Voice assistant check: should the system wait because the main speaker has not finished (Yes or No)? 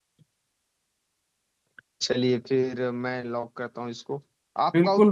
Yes